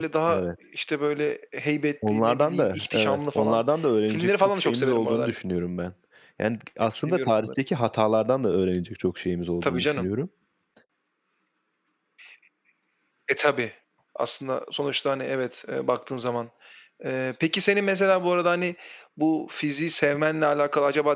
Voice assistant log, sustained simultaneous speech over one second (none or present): present